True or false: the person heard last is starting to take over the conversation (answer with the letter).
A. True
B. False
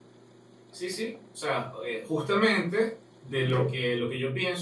B